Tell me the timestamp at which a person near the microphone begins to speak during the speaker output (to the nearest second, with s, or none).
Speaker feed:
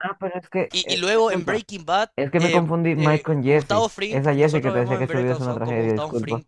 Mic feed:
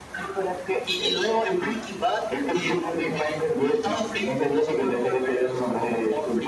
none